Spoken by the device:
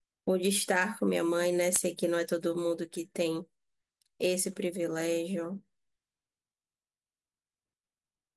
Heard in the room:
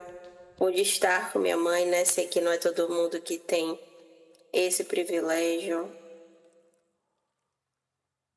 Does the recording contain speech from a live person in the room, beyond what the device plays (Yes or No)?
No